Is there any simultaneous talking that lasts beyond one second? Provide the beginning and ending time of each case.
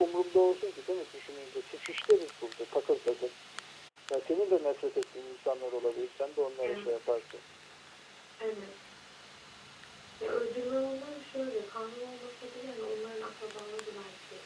none

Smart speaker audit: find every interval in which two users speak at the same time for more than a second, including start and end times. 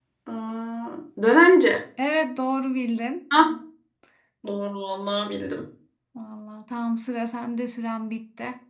none

